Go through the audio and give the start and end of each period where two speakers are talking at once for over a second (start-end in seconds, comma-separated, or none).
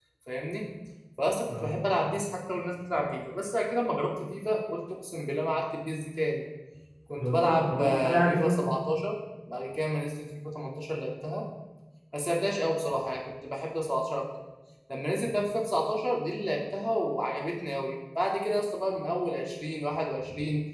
7.2-8.6